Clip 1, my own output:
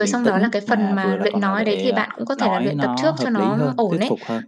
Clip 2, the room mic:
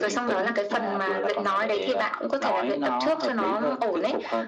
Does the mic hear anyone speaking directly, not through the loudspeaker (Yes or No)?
No